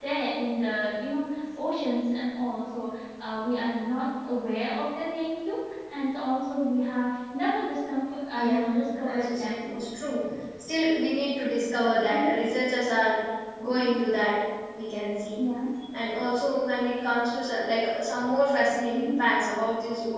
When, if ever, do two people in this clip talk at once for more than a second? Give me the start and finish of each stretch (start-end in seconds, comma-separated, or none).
8.3-9.7